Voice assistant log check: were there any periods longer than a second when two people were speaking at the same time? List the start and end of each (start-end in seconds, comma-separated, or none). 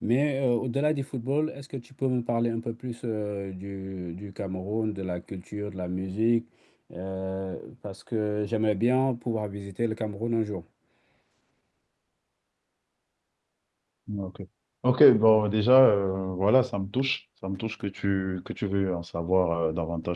none